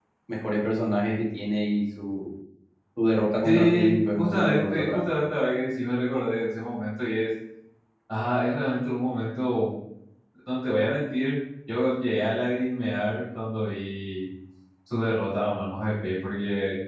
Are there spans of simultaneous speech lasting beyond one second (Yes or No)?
Yes